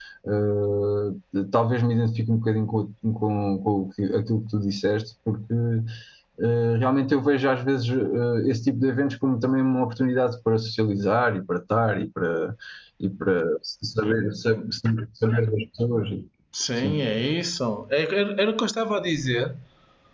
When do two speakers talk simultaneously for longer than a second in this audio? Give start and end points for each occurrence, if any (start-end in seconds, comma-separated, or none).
none